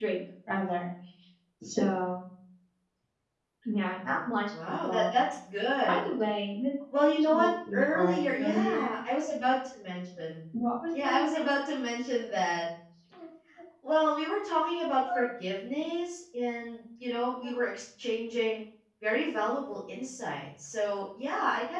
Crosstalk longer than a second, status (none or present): present